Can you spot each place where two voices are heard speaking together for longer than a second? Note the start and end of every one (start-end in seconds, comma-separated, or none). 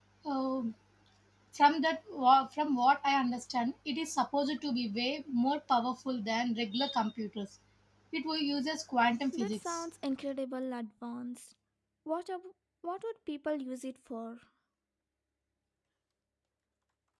none